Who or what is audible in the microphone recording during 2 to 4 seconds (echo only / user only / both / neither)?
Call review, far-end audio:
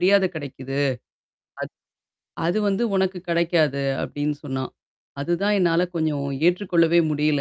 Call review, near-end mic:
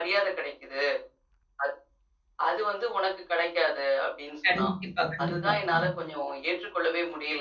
echo only